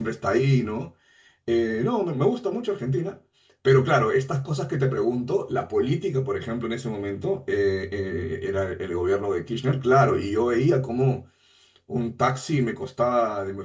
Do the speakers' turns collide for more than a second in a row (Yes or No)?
No